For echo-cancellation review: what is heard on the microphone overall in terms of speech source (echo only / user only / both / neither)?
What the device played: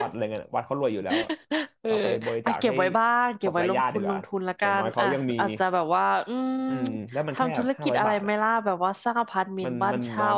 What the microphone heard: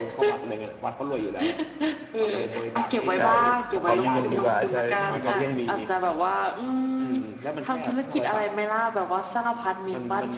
both